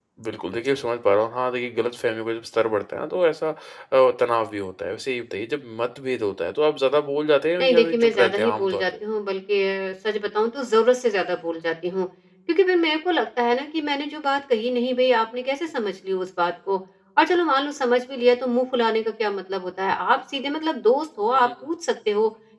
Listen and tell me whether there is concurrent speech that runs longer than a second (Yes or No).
Yes